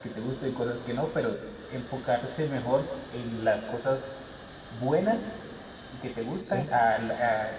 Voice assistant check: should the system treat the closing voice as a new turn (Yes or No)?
No